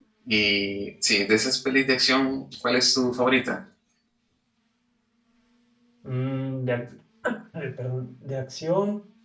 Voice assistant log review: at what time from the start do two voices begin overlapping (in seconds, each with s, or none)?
none